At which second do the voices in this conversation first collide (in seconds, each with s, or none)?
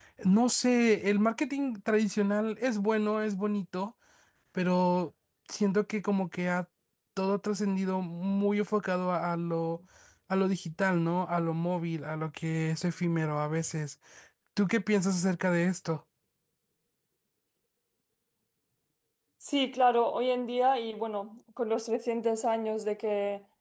none